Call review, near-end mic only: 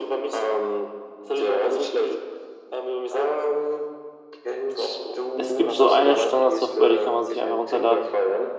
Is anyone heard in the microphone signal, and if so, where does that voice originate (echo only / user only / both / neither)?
both